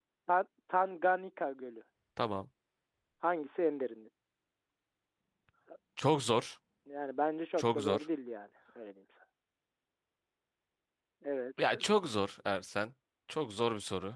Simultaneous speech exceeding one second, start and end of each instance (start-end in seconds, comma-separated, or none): none